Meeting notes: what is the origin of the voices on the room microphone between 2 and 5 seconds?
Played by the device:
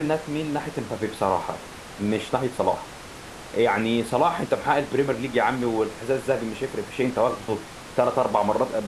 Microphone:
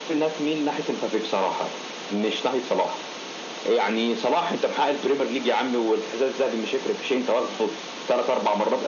echo only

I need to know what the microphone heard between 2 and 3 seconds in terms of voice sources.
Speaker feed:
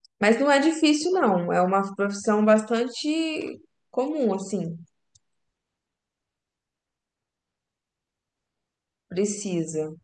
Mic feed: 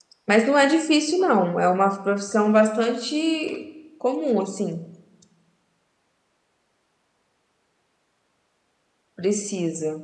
echo only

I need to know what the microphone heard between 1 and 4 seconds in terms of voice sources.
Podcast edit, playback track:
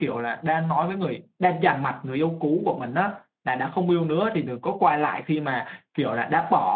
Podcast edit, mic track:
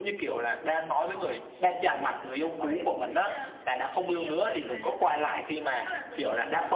both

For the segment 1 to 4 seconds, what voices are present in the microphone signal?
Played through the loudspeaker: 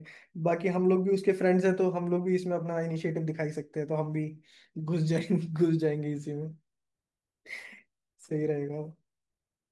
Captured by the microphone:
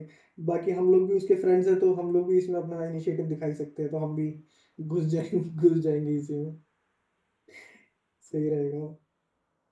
echo only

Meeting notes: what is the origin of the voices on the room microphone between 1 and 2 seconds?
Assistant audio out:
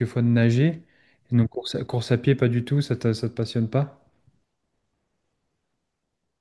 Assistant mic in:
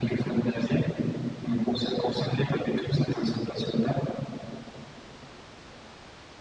echo only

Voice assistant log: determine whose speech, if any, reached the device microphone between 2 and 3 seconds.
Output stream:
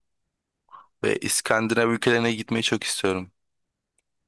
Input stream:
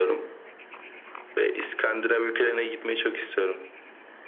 echo only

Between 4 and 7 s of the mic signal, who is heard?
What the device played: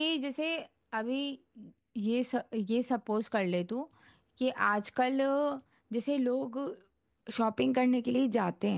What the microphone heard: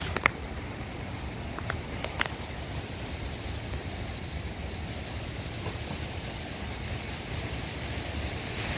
neither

